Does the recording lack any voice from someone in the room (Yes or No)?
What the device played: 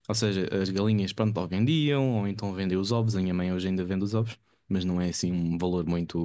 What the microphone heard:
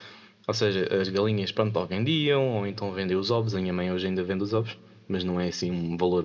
Yes